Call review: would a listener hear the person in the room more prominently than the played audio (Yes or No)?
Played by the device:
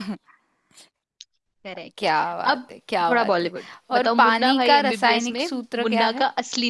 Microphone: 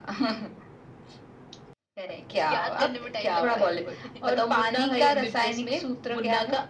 No